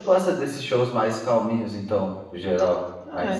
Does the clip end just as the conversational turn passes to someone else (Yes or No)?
Yes